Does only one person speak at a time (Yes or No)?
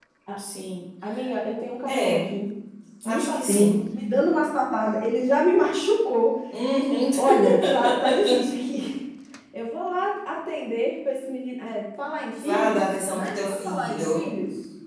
No